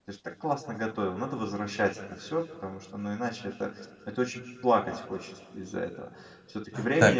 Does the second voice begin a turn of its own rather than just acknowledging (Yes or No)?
Yes